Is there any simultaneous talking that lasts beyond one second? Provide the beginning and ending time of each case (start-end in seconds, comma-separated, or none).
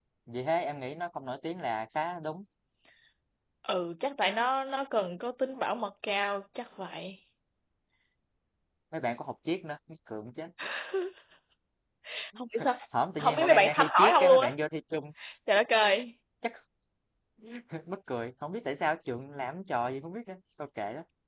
13.2-14.5